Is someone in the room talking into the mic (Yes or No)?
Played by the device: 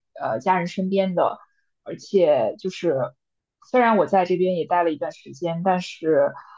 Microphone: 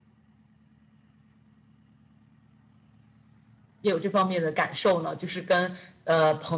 Yes